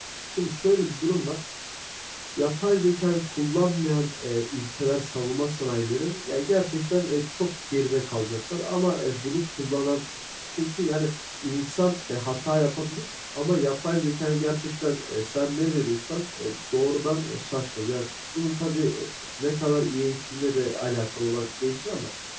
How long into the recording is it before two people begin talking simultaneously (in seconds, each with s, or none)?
none